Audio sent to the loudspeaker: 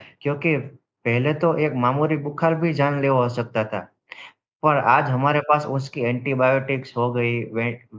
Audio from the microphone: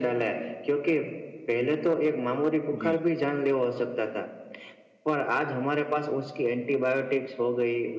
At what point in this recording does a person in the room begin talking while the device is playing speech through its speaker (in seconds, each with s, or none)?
2.8 s